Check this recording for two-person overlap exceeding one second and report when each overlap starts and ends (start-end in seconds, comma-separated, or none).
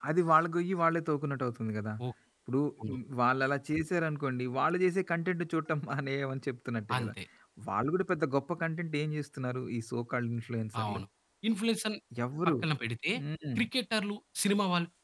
none